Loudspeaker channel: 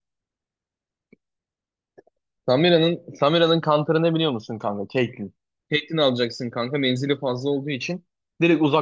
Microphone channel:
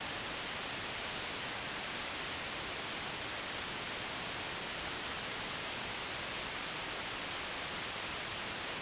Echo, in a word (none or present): none